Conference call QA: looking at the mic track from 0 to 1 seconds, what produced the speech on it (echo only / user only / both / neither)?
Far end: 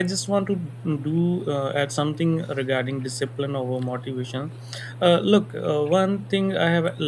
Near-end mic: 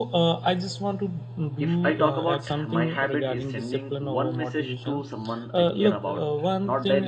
echo only